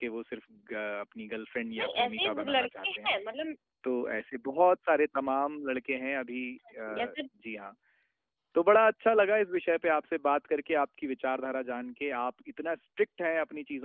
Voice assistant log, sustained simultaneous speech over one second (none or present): present